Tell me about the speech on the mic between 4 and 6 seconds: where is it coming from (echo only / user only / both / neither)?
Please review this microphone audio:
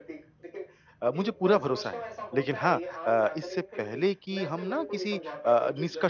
both